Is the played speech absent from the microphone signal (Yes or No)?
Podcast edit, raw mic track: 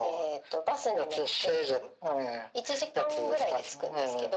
No